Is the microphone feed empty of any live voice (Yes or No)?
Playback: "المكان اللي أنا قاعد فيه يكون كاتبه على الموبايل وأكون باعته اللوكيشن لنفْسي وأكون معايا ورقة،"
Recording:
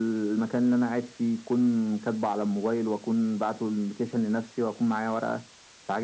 Yes